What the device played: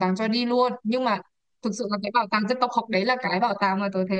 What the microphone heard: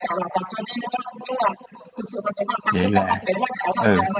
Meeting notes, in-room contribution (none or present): present